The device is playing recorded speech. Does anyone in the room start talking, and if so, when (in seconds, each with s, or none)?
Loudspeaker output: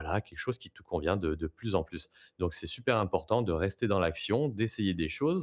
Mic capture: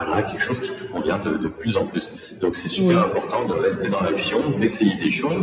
2.8 s